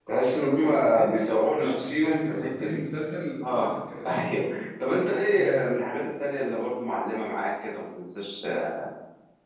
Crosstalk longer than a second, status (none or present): present